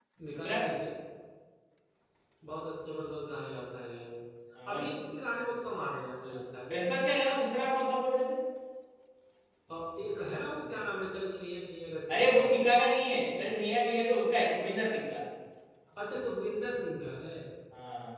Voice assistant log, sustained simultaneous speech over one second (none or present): none